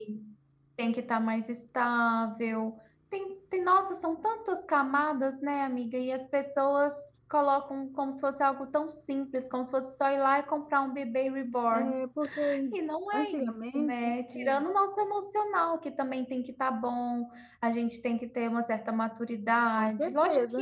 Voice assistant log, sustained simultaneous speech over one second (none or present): present